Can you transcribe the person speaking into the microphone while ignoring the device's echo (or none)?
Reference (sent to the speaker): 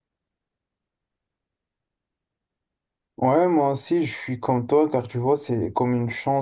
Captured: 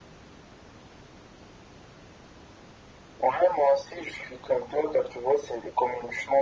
none